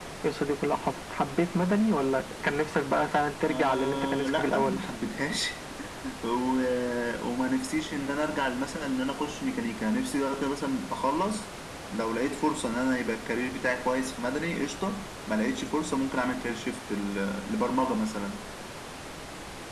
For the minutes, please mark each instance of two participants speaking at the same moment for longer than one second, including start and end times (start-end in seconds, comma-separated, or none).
3.4-4.8